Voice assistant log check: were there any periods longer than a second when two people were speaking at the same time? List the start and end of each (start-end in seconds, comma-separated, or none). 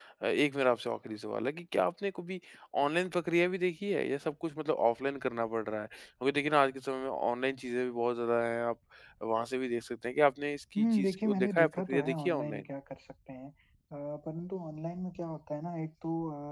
10.8-12.6